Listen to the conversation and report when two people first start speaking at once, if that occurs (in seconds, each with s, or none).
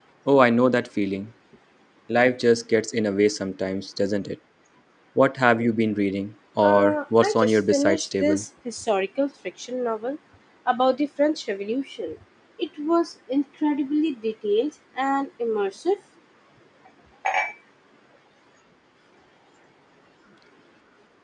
6.6 s